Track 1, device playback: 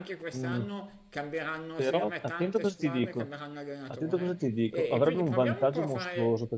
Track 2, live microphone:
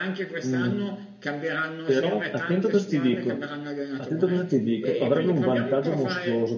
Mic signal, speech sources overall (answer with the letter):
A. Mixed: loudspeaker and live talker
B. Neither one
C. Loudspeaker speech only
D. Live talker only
C